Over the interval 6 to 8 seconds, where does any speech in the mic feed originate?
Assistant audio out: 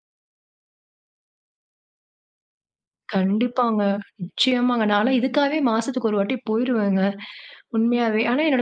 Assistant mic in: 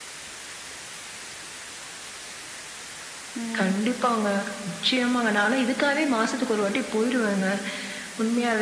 echo only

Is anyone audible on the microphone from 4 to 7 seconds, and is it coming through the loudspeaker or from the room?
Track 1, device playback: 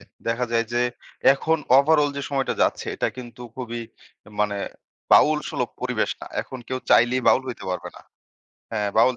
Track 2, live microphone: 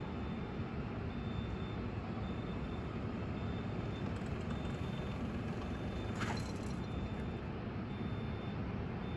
neither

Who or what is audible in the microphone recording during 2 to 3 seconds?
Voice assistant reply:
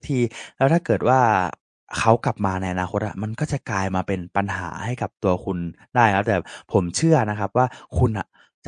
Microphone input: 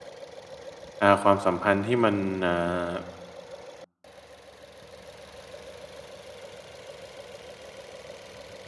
user only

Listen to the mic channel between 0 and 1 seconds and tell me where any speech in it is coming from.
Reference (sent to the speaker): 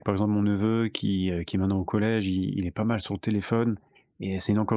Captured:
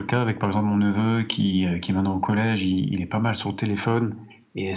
echo only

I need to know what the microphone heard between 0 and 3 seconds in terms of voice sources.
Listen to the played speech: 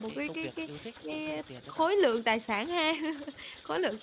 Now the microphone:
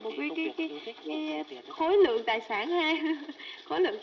echo only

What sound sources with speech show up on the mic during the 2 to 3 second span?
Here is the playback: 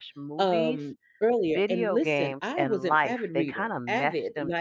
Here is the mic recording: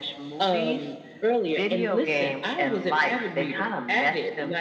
echo only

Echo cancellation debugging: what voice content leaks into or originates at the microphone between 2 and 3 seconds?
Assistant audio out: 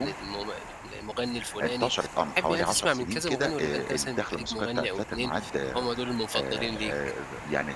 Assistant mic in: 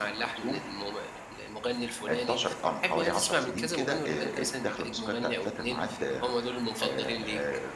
echo only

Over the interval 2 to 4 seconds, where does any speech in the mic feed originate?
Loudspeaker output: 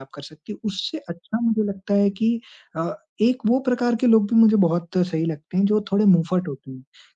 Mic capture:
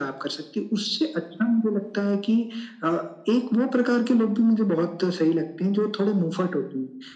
echo only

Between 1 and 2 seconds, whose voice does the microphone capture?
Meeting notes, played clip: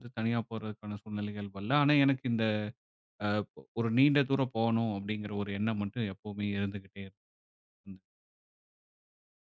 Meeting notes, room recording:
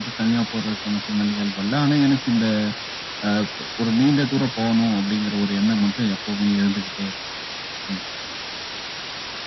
echo only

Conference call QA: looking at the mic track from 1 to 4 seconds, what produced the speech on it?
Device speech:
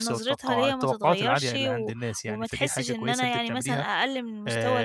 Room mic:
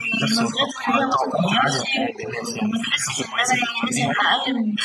echo only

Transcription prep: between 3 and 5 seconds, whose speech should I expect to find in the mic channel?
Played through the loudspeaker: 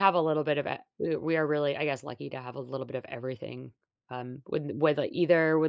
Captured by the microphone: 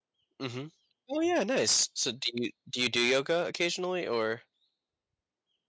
user only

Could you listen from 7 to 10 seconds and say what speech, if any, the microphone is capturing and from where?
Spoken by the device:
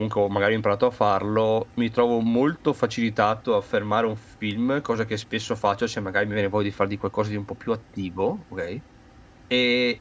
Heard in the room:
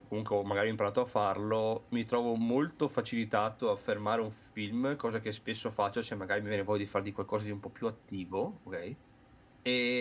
echo only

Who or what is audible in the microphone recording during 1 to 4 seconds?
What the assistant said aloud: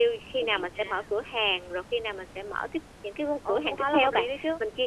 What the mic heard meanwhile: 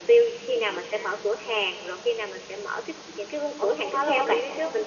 echo only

